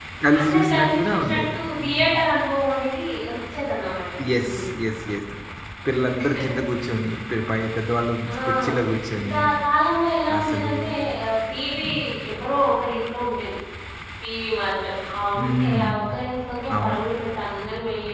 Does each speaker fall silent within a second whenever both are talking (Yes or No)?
No